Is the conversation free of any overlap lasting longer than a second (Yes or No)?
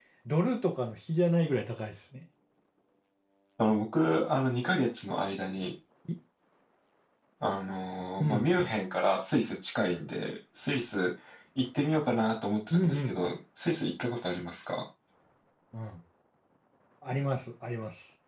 Yes